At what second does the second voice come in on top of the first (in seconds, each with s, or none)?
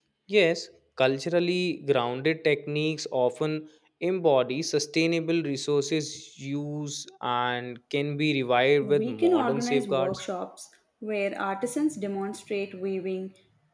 8.8 s